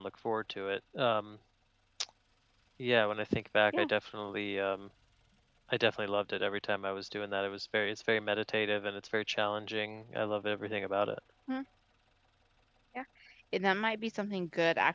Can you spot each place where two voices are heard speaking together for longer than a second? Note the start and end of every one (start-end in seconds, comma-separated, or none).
none